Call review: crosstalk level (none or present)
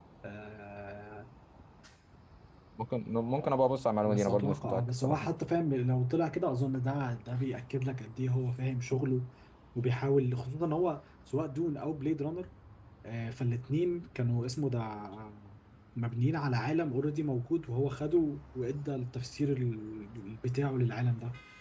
present